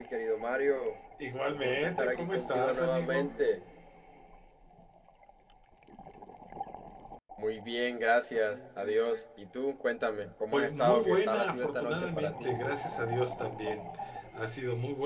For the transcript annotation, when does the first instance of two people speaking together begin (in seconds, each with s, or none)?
1.5 s